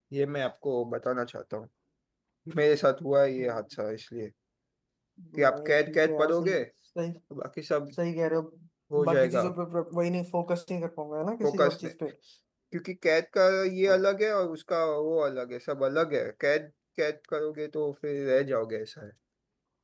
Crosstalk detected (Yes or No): Yes